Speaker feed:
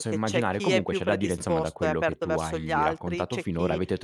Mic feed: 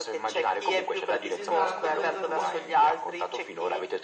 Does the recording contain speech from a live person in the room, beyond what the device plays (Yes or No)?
Yes